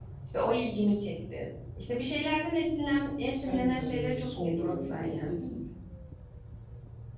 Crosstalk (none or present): present